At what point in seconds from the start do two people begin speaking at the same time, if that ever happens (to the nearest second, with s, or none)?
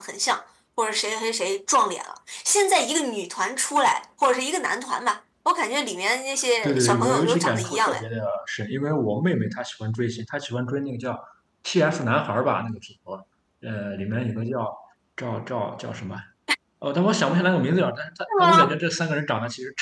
7 s